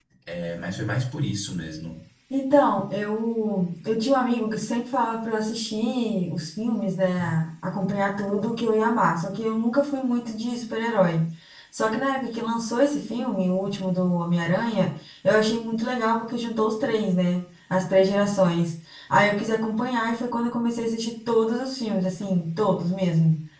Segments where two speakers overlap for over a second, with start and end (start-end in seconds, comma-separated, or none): none